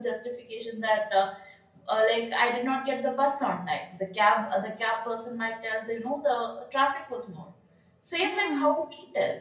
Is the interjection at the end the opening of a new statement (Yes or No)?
No